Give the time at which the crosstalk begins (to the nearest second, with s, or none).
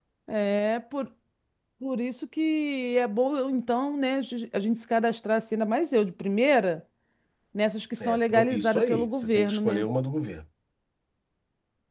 8 s